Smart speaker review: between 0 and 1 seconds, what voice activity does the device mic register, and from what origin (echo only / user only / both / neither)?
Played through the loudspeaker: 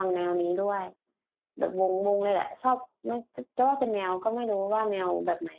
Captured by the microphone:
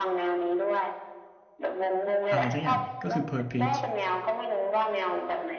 echo only